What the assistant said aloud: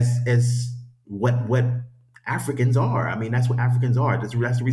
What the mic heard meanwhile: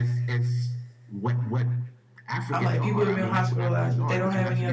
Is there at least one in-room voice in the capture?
Yes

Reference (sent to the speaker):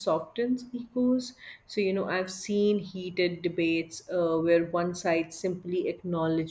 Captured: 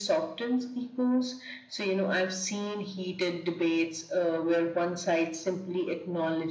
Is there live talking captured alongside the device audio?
No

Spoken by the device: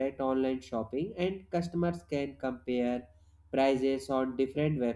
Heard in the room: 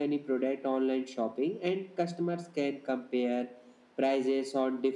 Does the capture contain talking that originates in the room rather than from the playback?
No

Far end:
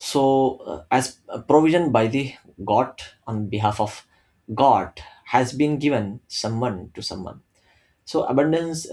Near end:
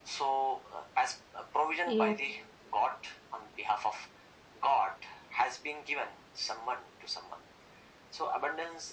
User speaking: Yes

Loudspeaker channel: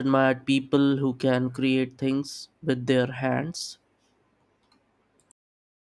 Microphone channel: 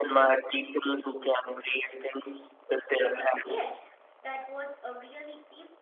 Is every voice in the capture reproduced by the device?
No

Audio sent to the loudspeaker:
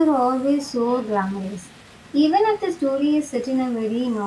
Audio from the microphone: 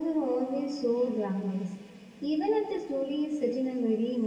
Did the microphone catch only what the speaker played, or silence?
Yes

